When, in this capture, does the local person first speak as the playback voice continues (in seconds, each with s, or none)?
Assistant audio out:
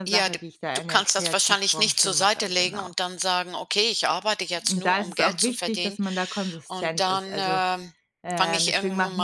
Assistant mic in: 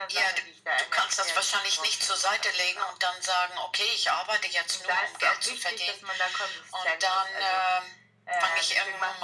none